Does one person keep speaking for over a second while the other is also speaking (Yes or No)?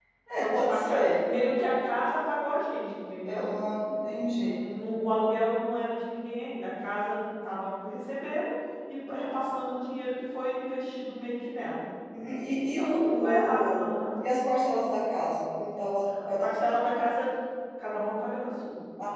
Yes